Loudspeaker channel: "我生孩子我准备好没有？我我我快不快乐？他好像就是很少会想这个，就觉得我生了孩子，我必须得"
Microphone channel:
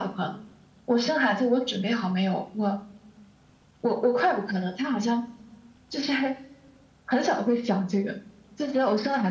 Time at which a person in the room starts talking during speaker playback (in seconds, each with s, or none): none